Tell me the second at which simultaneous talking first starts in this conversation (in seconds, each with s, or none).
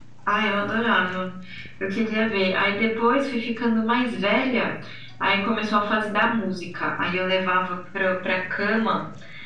none